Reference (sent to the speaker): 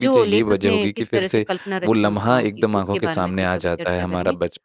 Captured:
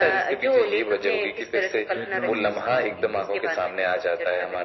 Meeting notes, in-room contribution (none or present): present